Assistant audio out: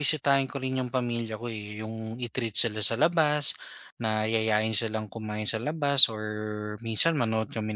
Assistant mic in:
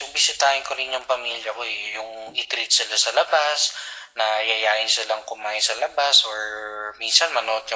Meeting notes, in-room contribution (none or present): none